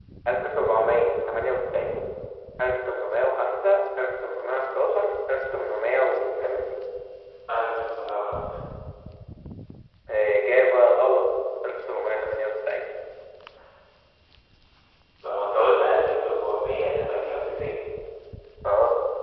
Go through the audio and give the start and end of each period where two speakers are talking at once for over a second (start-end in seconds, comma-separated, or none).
none